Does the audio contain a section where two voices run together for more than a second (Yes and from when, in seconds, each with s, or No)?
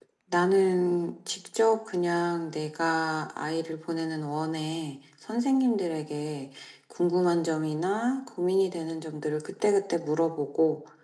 No